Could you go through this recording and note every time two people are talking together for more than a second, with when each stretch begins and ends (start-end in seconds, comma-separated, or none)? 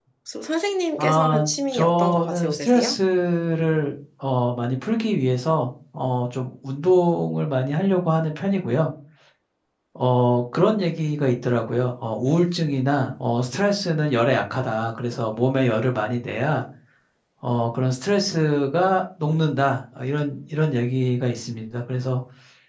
1.0-3.0